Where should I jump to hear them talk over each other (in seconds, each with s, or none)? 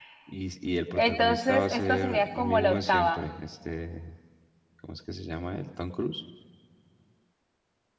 0.9 s